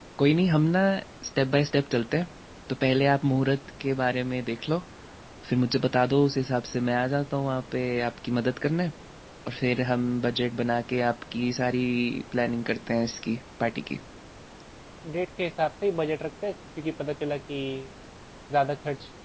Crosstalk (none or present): none